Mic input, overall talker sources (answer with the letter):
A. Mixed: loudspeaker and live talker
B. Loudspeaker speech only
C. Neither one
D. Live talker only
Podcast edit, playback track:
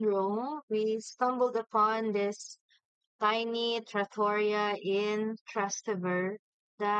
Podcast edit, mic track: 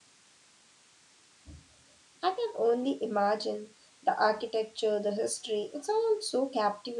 D